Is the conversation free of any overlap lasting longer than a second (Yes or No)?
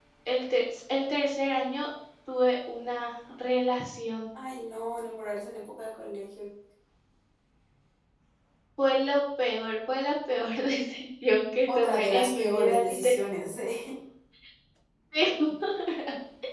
No